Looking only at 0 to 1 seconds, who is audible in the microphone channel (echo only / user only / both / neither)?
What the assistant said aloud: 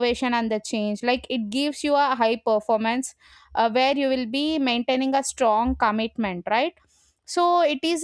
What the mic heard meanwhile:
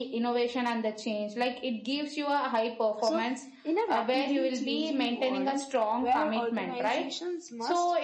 echo only